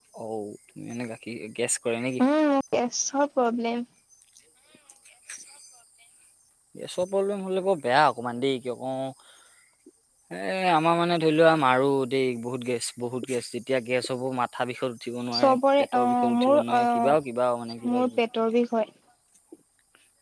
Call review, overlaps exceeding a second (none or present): present